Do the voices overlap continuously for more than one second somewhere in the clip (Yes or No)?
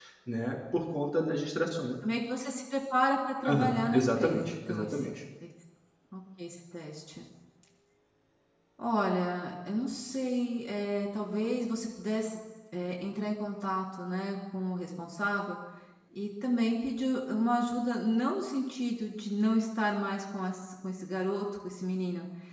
Yes